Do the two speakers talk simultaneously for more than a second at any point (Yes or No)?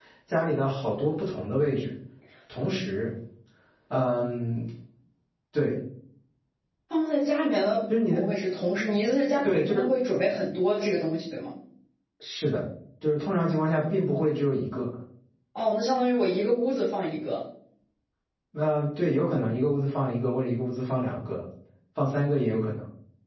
No